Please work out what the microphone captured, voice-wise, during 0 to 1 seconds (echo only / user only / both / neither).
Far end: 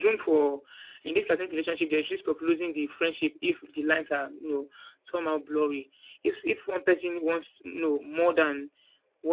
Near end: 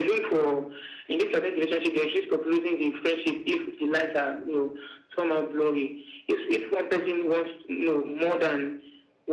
echo only